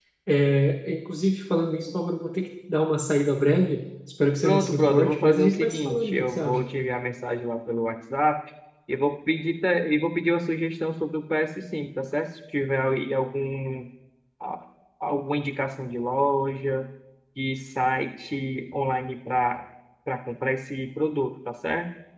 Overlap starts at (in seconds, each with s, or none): 4.4 s